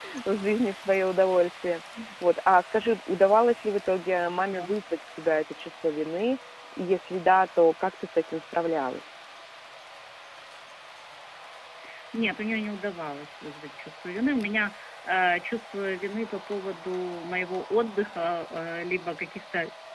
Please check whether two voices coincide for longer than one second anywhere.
No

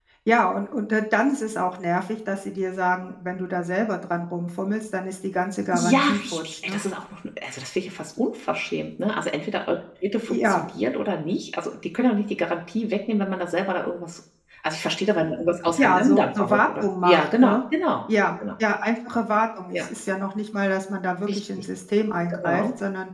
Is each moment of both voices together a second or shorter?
No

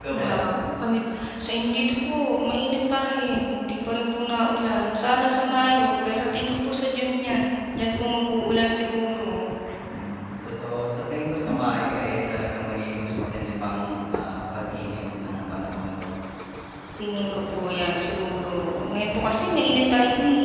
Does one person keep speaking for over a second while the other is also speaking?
No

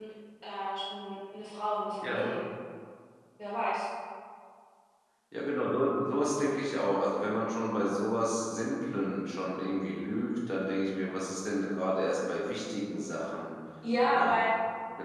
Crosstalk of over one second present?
No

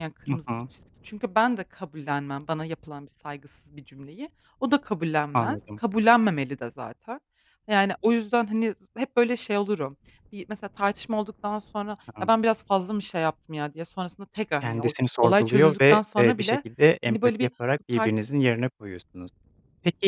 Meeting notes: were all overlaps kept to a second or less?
No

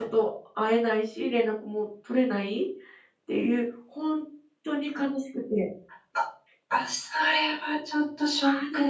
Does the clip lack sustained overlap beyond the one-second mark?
Yes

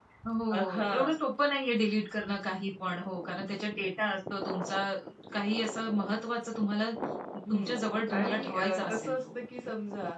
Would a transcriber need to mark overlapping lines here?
Yes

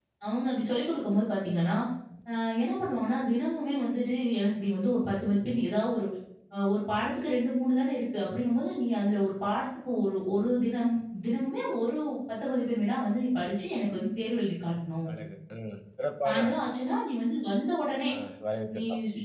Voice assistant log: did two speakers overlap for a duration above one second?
No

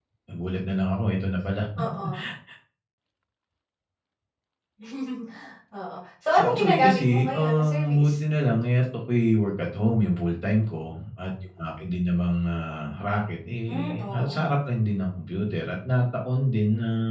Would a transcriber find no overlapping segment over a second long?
No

